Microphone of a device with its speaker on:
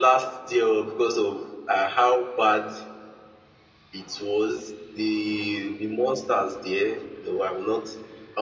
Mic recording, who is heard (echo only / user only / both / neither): echo only